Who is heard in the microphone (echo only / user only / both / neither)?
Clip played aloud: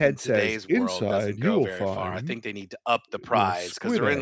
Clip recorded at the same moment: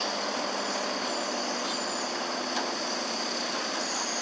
neither